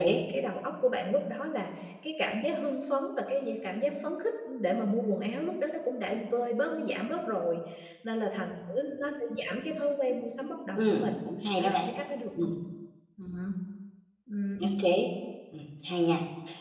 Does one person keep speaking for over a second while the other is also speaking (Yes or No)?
No